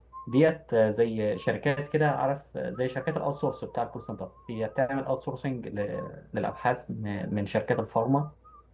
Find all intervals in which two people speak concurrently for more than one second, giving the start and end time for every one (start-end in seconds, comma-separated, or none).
none